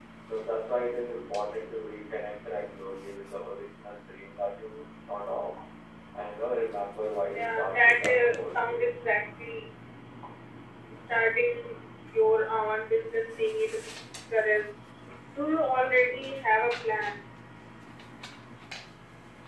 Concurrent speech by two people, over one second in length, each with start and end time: 7.3-9.0

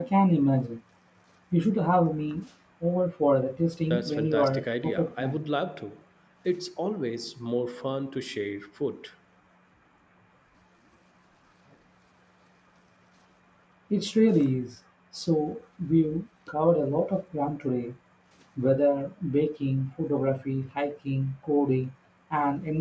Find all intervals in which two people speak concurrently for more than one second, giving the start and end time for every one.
3.9-5.4

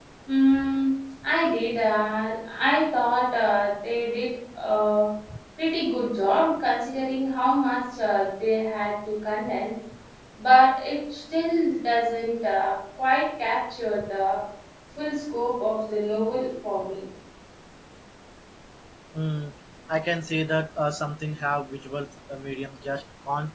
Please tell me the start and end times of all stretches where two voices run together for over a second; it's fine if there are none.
none

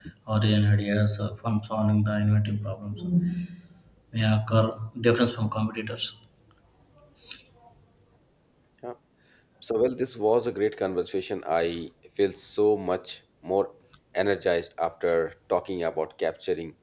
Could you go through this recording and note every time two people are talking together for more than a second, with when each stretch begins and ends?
none

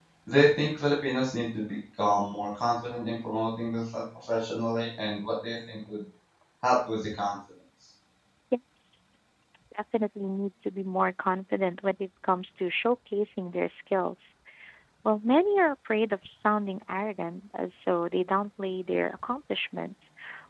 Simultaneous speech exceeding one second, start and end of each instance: none

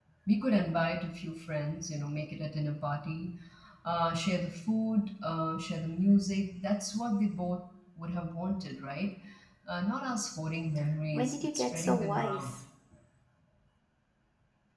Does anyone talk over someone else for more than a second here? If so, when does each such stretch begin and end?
11.1-12.5

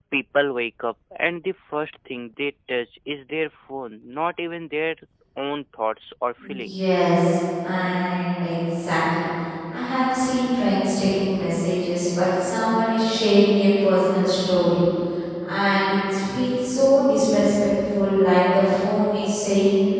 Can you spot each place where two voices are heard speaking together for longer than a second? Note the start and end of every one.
none

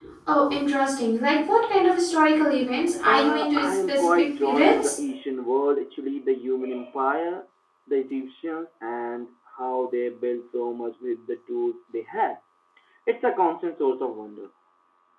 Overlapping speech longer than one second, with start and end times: 3.1-5.0

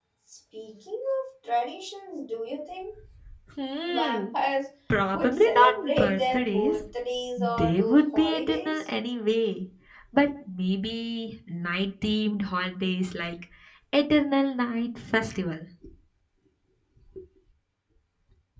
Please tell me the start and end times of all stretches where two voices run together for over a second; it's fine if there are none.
5.1-6.8, 7.4-8.9

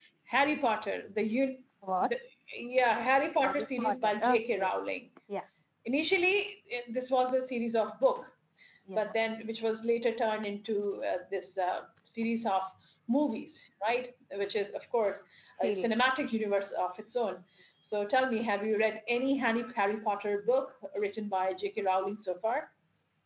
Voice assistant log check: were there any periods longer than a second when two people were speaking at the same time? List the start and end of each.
3.4-4.7

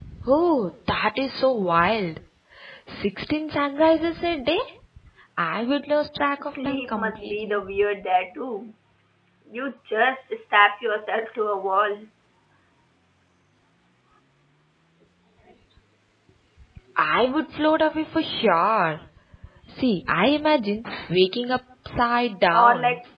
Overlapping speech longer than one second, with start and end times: 6.4-7.6

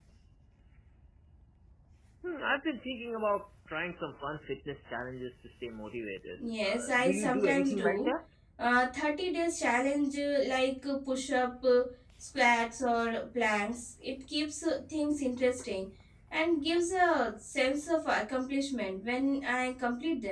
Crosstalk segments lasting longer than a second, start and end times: 6.6-8.1

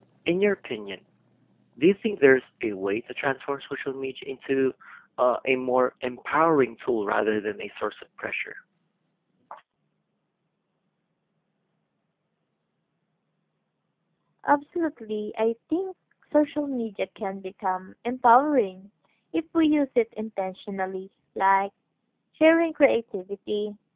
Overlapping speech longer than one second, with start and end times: none

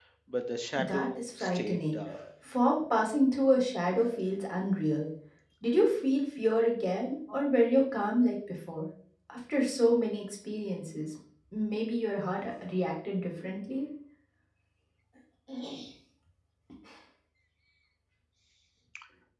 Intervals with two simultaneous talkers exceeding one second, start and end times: 0.8-2.0

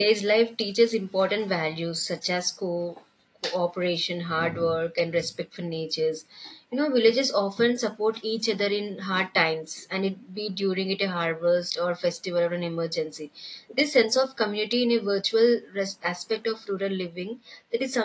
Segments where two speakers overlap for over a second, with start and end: none

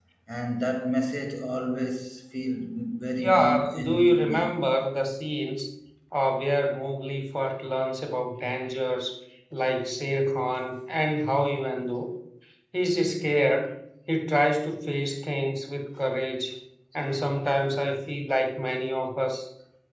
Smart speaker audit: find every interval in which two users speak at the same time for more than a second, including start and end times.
3.2-4.6

